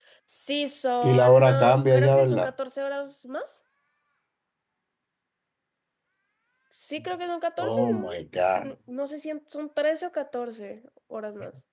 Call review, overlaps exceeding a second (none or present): present